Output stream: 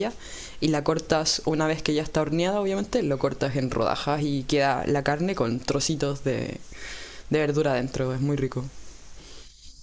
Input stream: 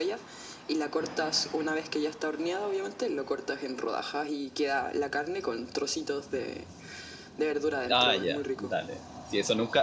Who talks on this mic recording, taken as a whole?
both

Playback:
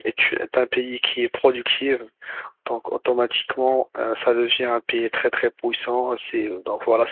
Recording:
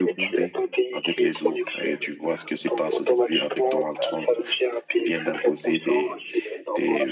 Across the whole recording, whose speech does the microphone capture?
both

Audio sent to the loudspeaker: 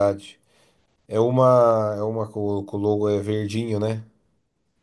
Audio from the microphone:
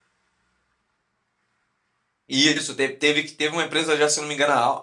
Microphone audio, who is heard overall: user only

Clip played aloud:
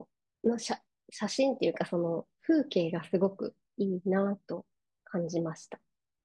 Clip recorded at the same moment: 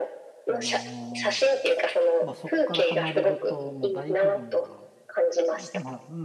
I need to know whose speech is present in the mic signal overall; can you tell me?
both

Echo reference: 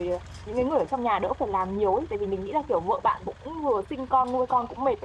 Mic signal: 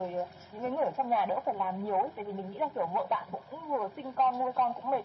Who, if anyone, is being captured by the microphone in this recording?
echo only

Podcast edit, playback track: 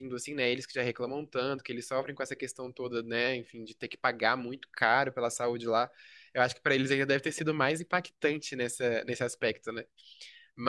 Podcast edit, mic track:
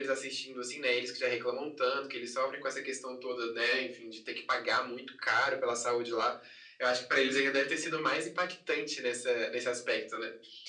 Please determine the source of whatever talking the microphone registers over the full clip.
echo only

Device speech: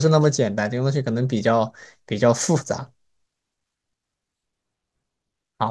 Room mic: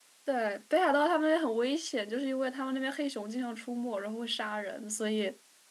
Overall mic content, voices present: user only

